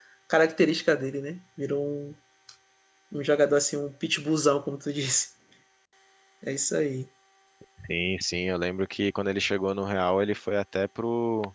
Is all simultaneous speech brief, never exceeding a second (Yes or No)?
Yes